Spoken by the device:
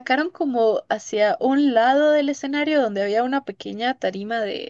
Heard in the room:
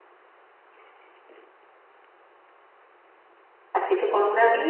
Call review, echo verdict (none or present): none